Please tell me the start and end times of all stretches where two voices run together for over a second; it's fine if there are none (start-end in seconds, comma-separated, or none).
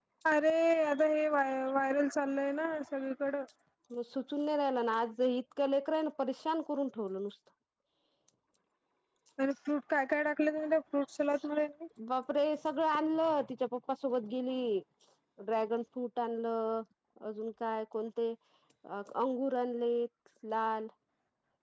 none